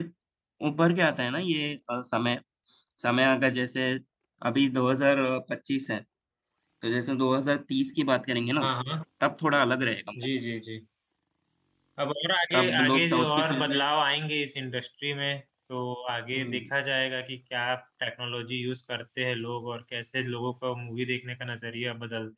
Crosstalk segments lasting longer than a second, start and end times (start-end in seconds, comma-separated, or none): 12.5-13.9